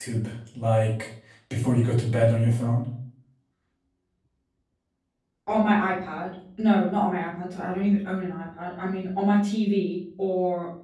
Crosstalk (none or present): none